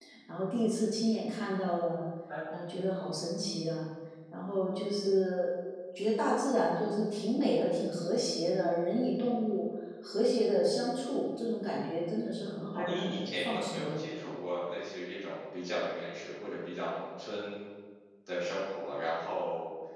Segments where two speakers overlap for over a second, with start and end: 12.7-14.1

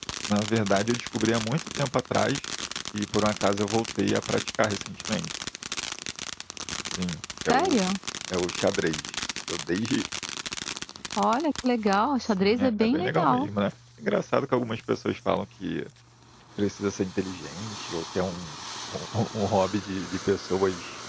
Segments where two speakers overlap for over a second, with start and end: 12.2-13.5

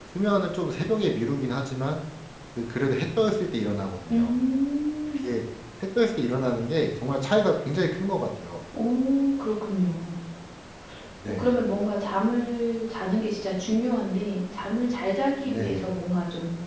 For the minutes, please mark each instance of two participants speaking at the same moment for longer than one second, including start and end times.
none

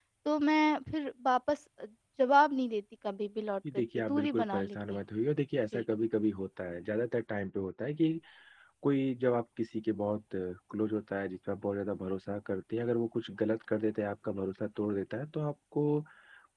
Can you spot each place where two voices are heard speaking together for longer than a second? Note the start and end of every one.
3.7-5.0

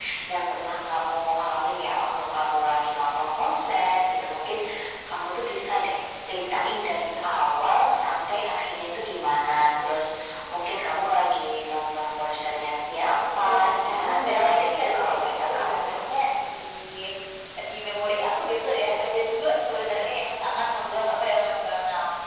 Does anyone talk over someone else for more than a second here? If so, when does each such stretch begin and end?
13.5-16.0

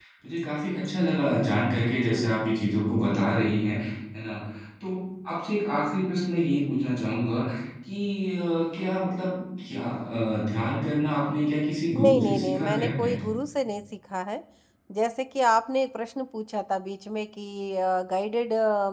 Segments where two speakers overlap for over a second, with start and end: 12.0-13.2

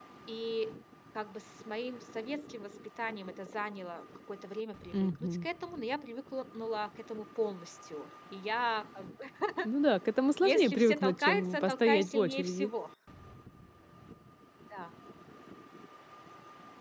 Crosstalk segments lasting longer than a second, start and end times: 10.5-12.7

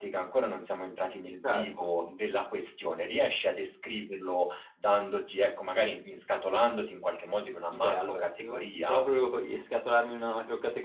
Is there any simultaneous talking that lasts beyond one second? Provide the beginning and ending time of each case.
7.7-9.0

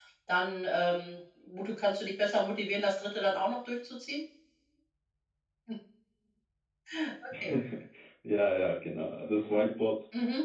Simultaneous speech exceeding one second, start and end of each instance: none

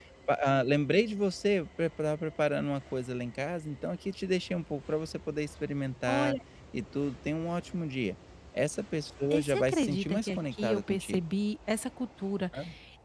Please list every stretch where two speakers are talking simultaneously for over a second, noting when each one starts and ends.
9.3-11.2

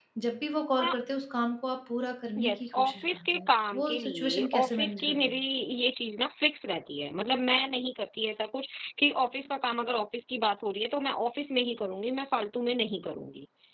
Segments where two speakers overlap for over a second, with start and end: 2.4-5.3

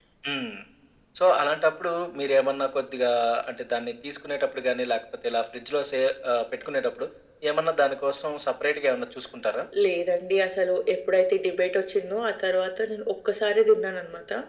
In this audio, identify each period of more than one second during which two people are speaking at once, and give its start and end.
none

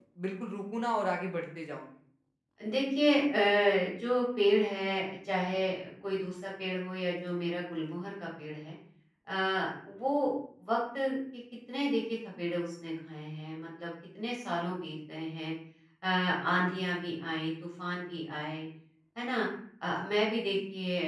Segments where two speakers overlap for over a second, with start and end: none

